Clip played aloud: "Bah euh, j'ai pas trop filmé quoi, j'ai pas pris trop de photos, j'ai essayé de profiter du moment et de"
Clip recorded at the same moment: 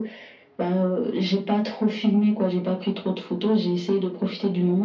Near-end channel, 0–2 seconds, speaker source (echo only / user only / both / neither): echo only